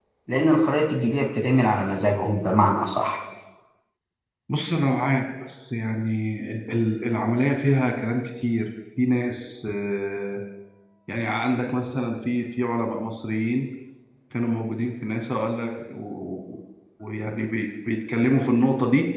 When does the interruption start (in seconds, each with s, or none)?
none